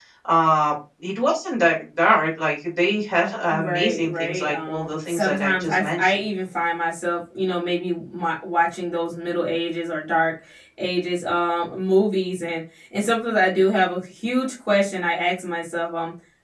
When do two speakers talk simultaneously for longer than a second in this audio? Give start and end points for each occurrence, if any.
3.5-6.2

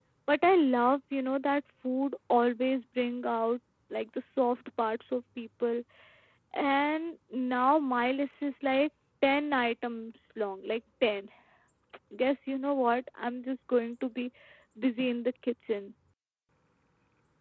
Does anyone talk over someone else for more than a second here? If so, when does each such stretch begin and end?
none

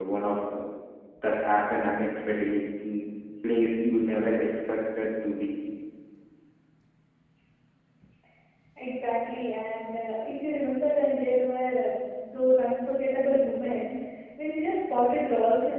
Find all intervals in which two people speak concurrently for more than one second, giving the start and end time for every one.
none

